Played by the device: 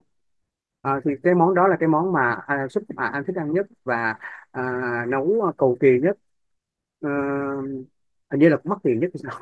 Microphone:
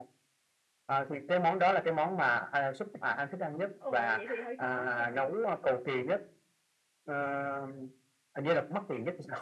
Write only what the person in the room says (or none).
ồ vậy thì hơi khó ờ.